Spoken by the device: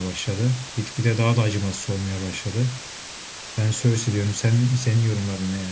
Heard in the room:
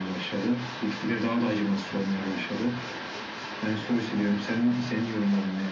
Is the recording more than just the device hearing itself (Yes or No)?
No